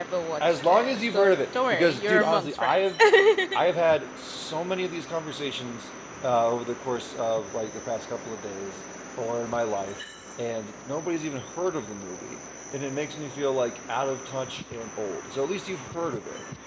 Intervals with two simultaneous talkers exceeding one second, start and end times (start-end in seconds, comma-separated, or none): 0.5-2.9